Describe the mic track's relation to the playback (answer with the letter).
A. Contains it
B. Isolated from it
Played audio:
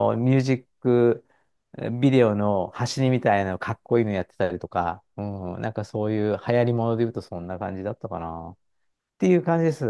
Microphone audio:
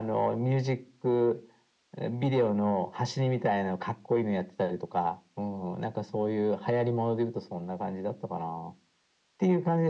A